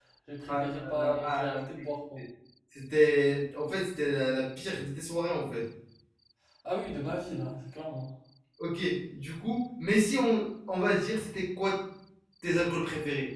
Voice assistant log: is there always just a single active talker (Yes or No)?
No